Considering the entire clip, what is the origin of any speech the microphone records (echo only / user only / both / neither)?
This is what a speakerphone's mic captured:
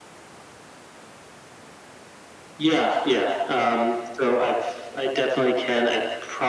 echo only